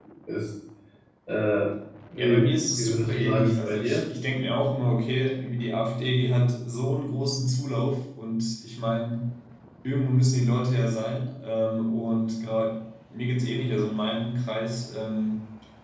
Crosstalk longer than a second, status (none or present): present